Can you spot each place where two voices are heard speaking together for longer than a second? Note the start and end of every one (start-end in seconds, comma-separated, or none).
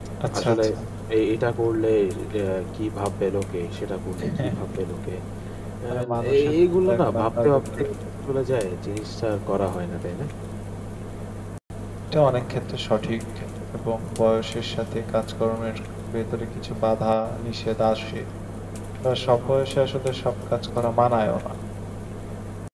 5.9-7.6